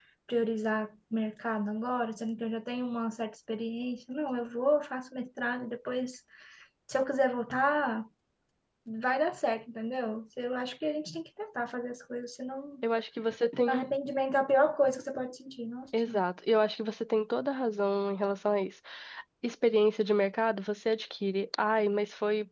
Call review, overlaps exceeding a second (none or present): none